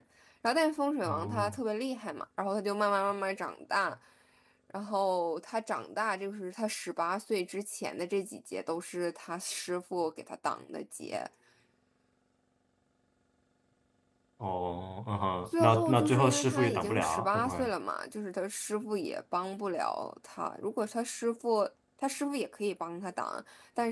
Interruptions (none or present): present